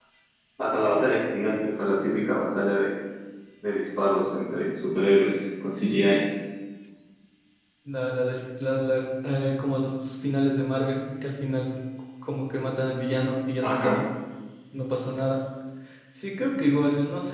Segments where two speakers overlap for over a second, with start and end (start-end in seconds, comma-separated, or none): none